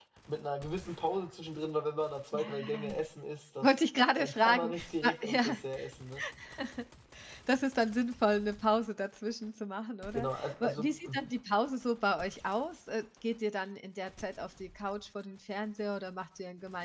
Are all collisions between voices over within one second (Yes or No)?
No